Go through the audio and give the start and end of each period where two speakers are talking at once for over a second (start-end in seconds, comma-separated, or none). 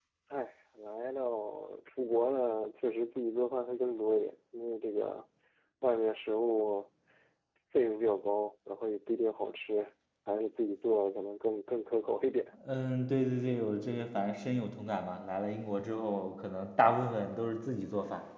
none